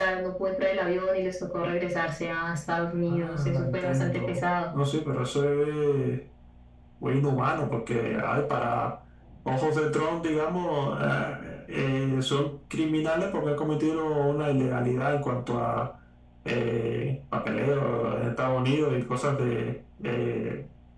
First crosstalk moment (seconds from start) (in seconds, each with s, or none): 3.1 s